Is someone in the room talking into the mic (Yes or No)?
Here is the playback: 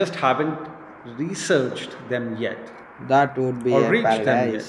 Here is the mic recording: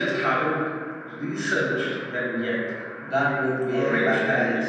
No